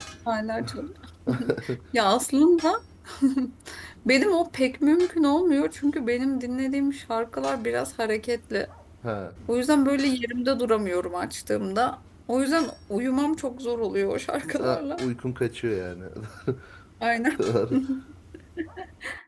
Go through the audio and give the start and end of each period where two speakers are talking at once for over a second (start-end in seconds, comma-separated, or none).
none